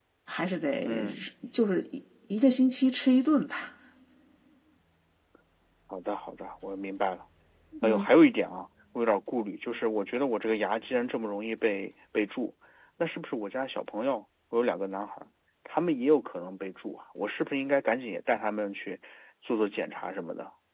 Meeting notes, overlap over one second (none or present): none